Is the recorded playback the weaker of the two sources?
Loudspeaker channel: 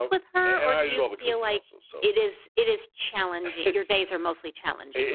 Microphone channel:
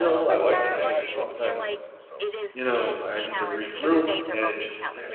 Yes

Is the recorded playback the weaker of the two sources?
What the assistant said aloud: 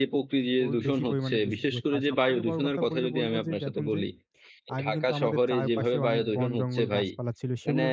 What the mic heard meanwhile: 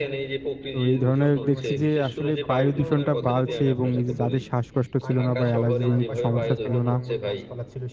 Yes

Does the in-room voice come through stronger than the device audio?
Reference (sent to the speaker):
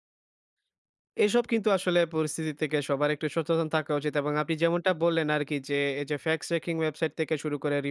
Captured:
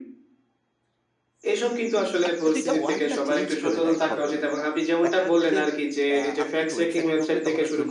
No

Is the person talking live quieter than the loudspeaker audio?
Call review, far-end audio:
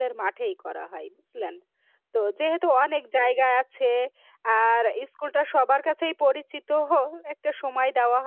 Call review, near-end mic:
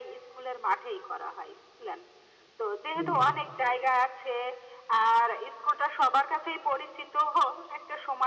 Yes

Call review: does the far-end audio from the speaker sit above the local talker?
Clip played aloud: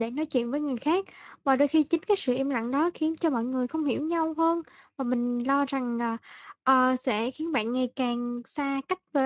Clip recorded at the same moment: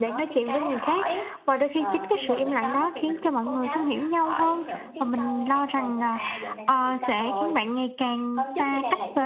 Yes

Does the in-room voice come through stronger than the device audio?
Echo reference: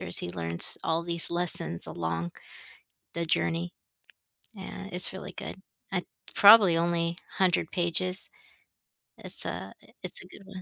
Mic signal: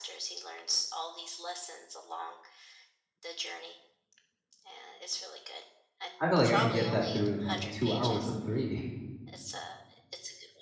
Yes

